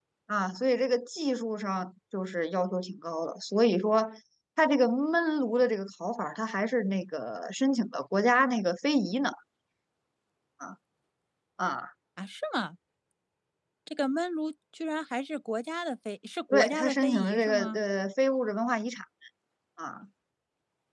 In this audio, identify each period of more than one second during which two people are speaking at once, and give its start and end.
16.5-17.8

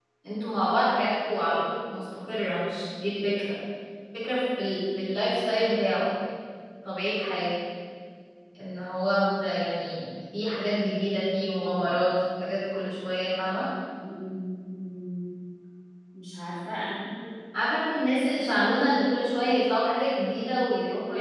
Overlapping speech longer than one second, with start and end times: none

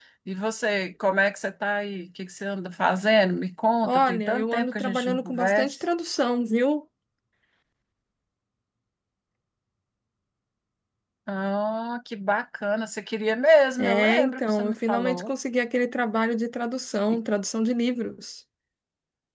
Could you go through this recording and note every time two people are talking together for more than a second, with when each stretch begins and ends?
3.8-5.8, 13.8-15.3

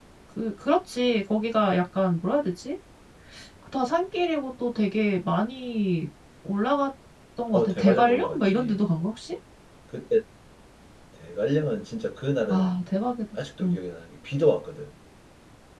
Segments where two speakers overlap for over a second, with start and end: 7.5-8.8

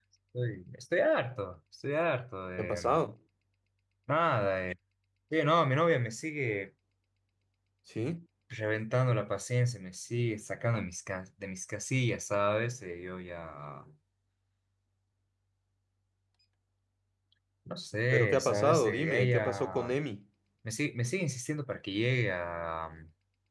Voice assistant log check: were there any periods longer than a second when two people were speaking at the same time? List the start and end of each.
18.1-19.9

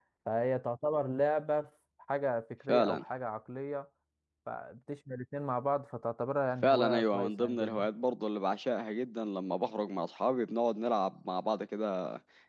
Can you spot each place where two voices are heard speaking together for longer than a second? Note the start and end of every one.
6.6-7.9

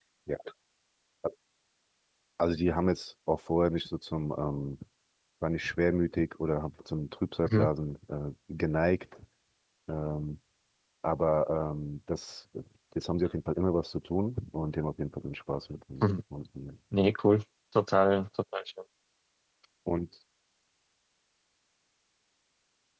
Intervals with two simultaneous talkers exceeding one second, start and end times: none

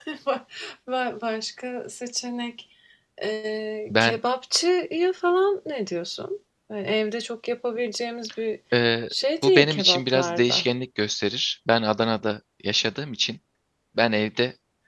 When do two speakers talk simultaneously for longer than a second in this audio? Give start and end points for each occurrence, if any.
9.4-10.6

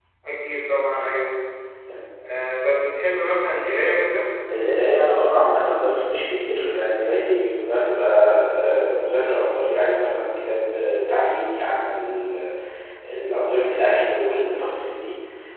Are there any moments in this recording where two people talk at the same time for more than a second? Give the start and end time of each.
none

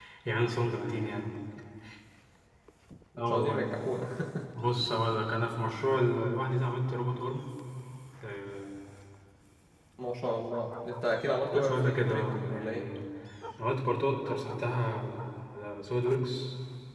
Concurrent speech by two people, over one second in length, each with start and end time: 11.5-12.9

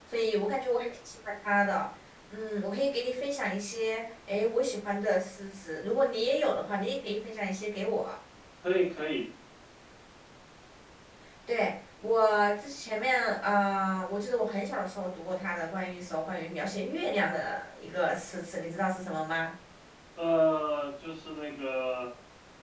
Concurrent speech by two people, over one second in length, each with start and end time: none

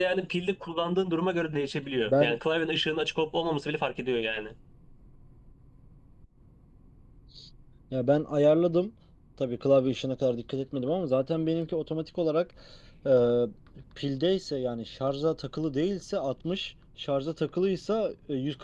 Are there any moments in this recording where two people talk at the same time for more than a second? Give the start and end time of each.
none

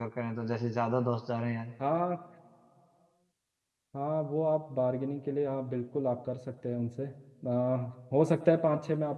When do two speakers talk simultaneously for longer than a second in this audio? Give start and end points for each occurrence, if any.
none

